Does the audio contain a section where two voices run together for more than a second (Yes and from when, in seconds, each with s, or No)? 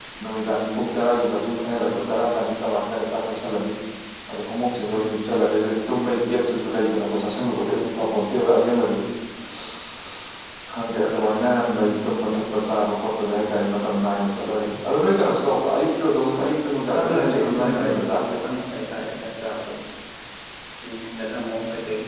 Yes, from 16.9 s